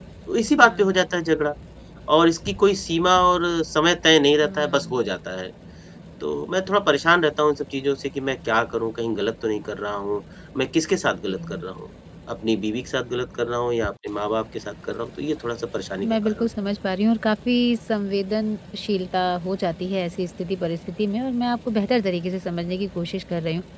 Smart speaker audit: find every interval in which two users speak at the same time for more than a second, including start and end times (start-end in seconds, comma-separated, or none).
none